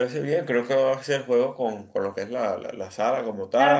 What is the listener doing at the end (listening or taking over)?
taking over